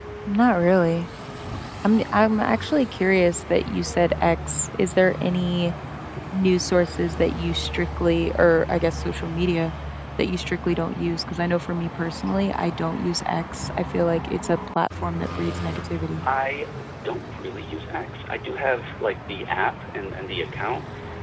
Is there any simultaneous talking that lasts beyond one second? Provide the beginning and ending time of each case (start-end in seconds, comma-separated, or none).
none